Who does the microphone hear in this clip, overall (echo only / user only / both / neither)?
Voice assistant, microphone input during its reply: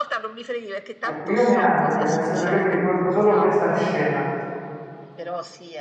both